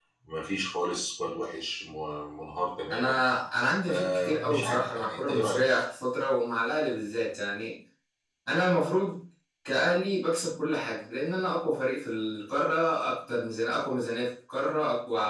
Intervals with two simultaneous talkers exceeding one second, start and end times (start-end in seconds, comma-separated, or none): 3.8-5.6